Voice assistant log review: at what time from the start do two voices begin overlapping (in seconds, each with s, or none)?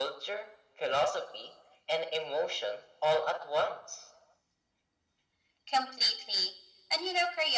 none